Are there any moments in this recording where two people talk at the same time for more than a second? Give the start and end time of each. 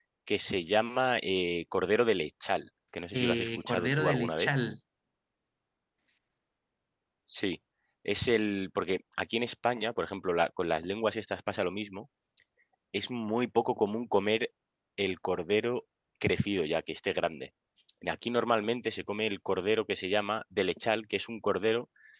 3.1-4.5

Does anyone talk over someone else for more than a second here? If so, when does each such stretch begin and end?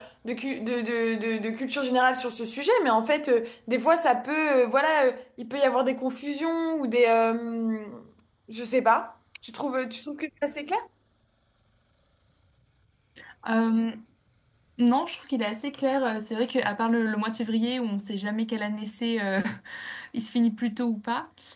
none

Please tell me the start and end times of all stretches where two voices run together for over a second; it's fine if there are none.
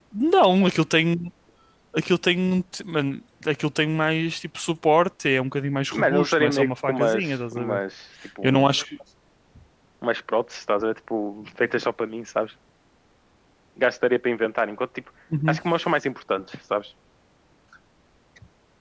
5.9-7.8

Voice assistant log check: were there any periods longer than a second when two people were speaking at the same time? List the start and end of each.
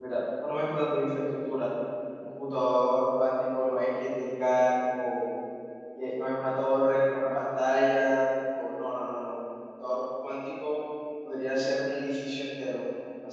none

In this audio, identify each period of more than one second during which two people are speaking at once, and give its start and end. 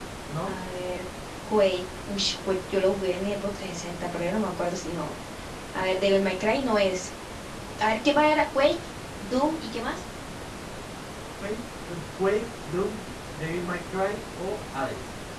none

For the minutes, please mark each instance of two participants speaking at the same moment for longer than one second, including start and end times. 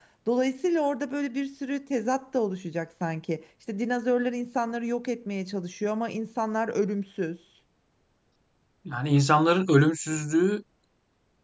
none

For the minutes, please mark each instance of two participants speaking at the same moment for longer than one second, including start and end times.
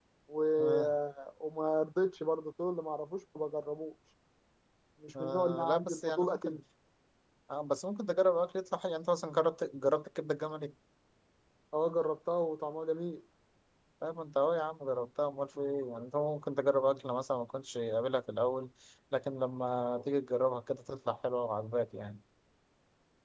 5.2-6.6

